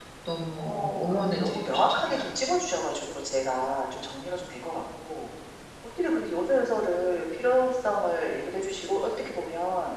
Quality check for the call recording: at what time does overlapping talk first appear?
0.6 s

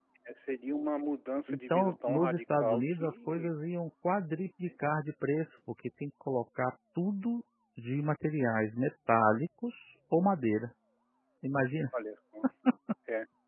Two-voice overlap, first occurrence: 1.5 s

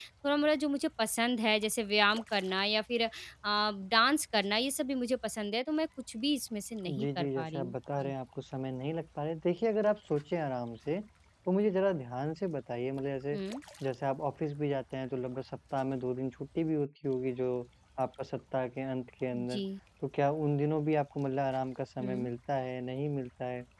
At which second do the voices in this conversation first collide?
6.8 s

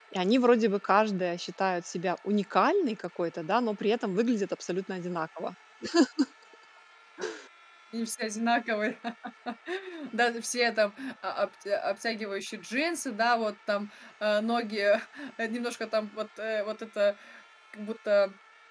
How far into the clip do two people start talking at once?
none

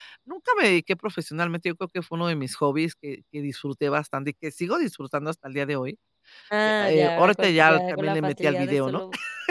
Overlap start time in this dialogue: 6.8 s

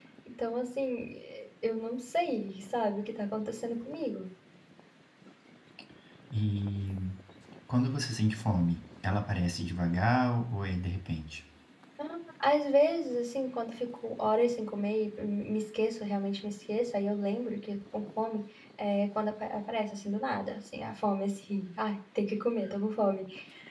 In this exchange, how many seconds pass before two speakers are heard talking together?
none

